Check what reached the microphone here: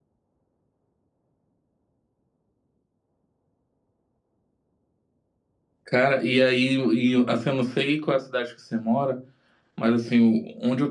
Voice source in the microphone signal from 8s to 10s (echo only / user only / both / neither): user only